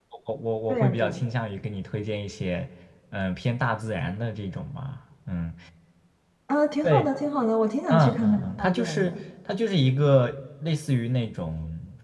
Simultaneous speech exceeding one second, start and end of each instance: 7.9-9.1

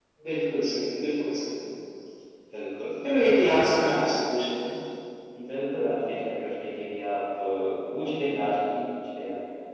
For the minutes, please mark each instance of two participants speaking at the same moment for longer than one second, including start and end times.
none

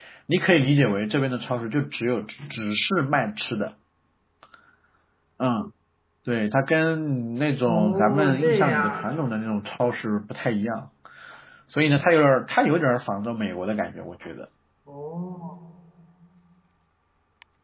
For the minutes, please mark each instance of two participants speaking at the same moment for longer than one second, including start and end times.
7.7-9.0

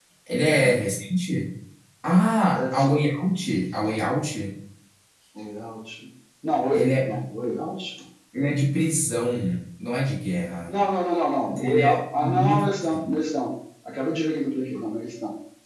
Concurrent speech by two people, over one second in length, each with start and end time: 11.6-13.1

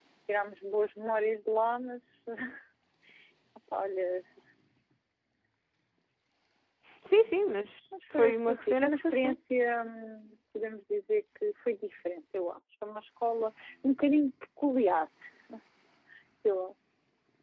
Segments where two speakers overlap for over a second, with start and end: 8.1-9.4

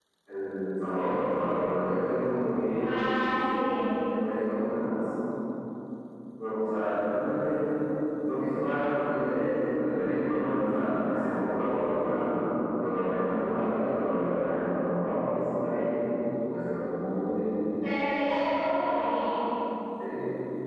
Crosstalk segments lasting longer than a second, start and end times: none

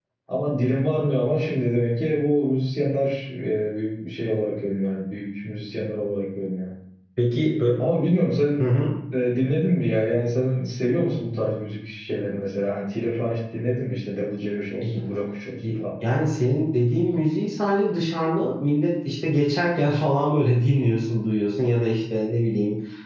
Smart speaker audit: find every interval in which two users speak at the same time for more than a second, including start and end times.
none

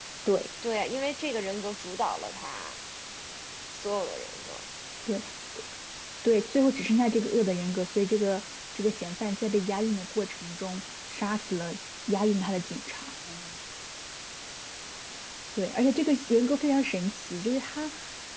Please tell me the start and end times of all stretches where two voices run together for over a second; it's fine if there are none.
none

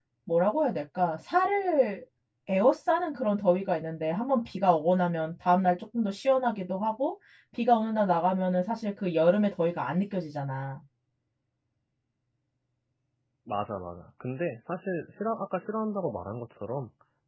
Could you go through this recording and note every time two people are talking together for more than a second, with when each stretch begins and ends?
none

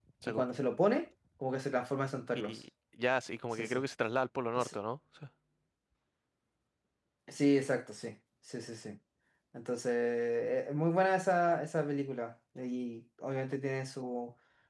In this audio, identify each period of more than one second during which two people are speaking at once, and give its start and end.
none

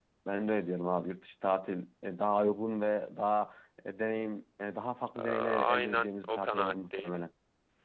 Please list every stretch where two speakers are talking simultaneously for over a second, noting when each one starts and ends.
5.2-7.1

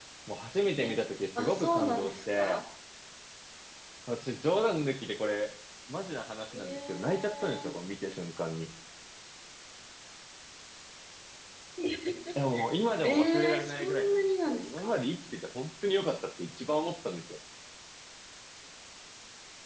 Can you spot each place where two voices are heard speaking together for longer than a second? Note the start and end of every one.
1.4-2.6, 6.5-7.7, 13.0-15.0

